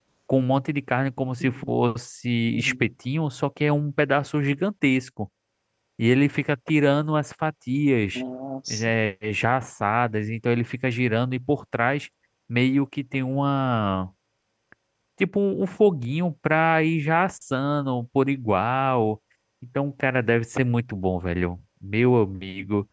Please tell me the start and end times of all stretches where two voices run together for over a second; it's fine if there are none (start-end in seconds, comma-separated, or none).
none